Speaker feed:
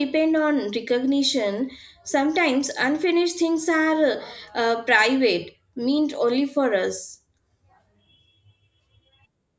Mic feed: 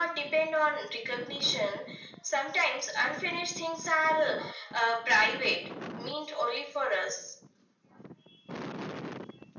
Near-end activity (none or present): none